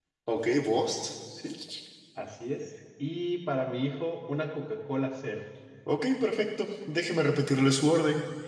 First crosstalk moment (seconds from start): none

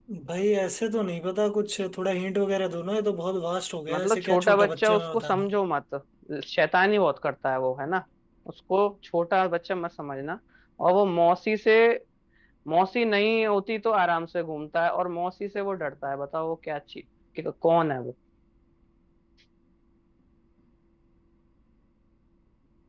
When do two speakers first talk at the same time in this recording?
3.9 s

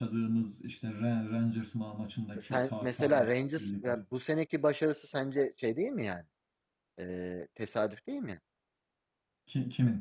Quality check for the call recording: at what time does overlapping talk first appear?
2.4 s

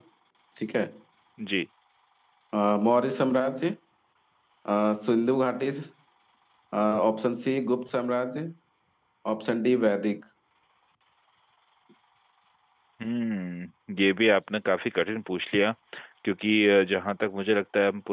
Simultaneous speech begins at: none

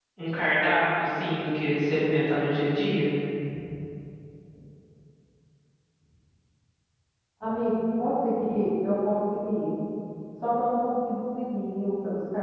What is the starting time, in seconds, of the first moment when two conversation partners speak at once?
none

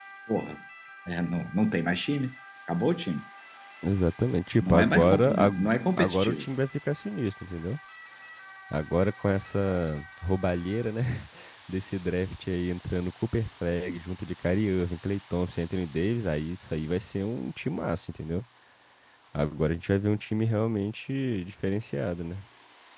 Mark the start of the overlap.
4.6 s

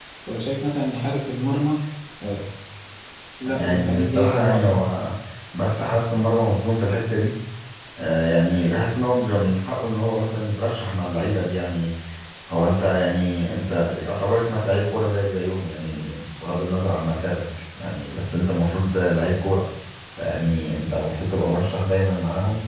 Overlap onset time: 3.5 s

